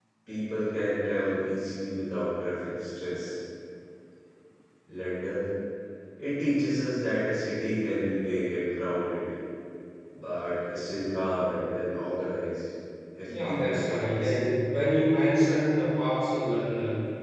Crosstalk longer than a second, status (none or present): present